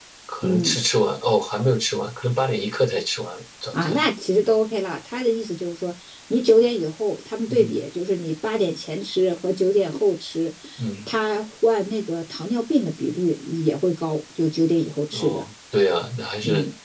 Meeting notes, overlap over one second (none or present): none